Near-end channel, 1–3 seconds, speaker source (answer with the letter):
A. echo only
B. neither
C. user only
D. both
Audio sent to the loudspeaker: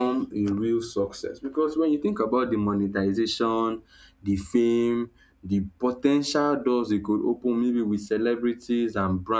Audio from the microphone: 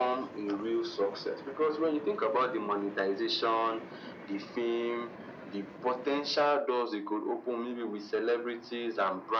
A